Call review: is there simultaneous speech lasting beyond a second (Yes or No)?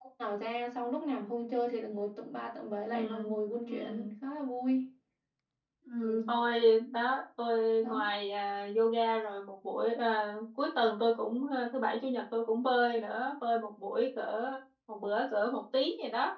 No